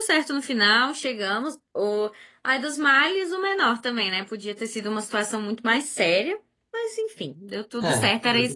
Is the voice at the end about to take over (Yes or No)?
No